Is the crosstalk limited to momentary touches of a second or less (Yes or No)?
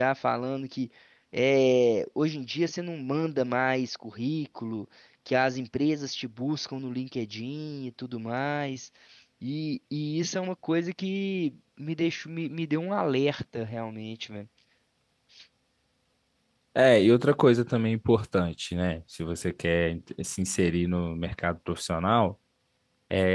Yes